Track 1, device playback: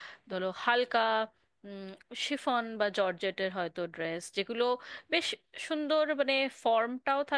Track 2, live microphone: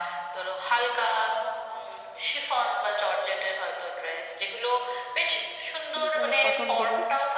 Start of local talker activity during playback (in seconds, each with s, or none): 6.0 s